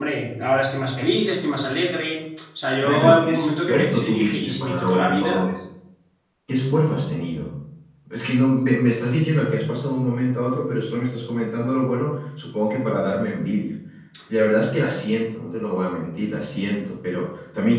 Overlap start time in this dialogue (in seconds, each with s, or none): 2.8 s